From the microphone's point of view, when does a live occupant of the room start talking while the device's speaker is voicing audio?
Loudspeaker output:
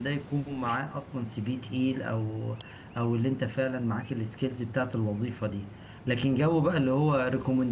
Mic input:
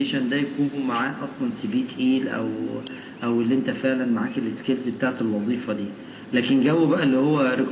none

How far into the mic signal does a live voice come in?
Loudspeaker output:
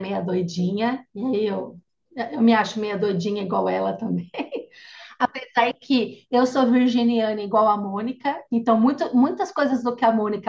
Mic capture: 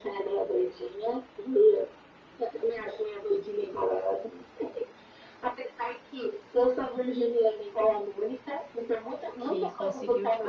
9 s

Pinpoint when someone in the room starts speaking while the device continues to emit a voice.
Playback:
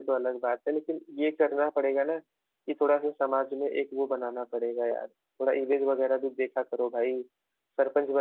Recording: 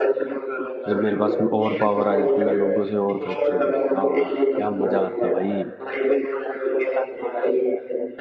1 s

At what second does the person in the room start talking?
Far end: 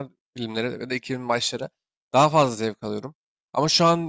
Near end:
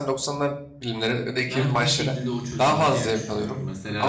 1 s

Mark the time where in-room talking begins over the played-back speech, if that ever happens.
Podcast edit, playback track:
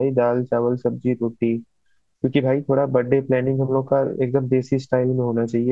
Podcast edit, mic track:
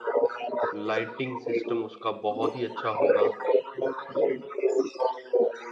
1 s

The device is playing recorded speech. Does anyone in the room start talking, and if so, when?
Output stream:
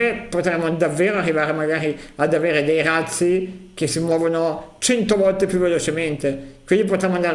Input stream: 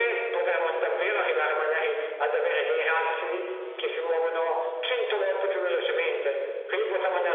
none

